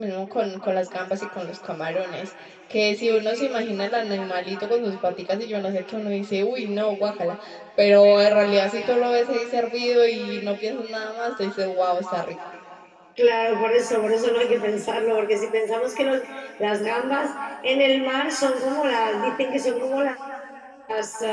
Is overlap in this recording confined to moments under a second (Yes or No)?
Yes